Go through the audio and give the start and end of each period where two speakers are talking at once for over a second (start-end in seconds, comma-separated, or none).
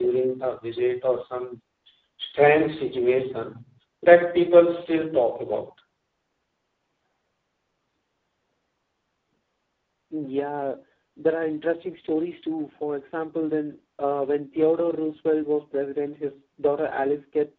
none